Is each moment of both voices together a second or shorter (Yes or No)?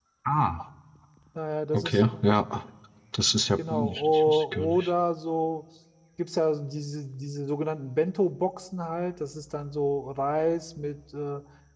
No